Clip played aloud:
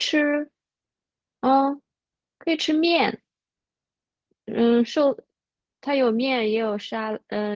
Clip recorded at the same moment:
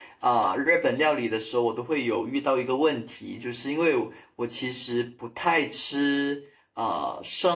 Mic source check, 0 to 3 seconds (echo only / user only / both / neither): user only